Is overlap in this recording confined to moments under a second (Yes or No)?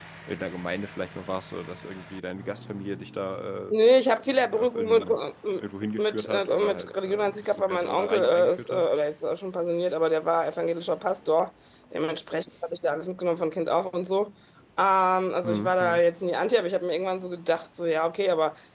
No